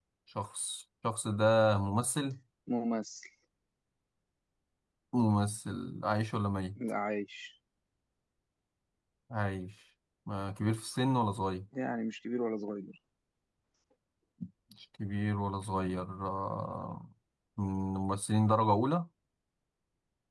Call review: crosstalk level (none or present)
none